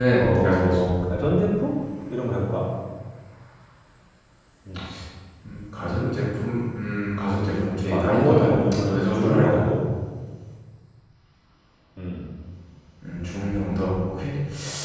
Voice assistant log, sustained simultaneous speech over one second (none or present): present